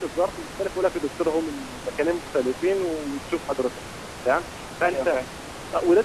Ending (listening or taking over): listening